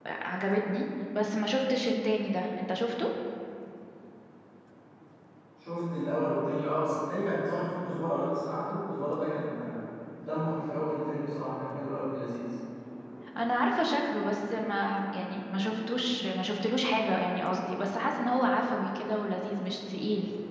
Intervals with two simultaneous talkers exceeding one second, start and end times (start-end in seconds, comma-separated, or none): none